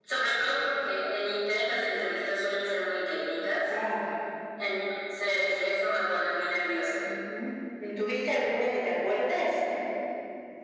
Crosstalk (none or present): none